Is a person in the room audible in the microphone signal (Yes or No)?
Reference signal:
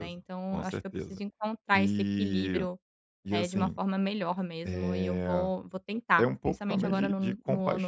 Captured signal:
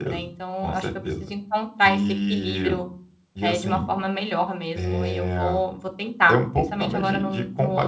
No